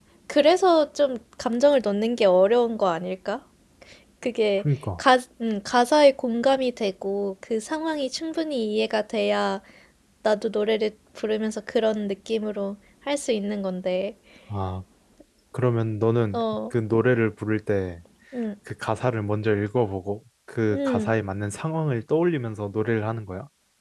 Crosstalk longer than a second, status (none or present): none